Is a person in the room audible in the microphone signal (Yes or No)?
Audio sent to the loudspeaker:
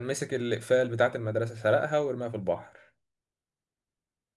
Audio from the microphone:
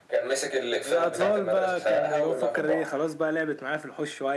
Yes